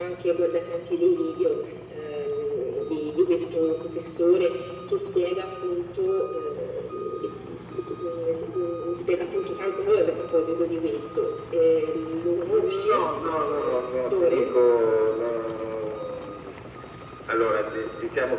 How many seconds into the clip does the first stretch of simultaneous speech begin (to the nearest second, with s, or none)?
12 s